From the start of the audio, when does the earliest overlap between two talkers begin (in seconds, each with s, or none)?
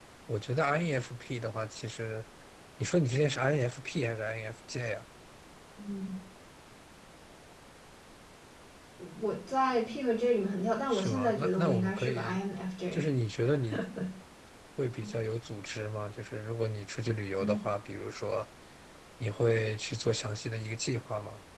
10.9 s